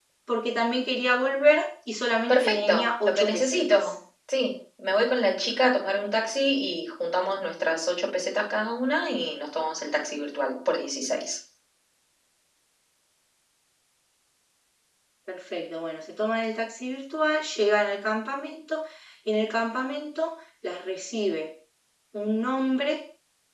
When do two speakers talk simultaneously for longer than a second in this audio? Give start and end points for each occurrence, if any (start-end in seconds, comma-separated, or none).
2.3-3.8